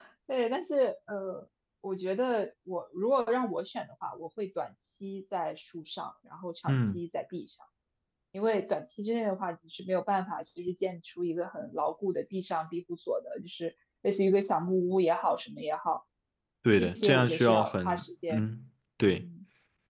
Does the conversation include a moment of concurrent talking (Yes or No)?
Yes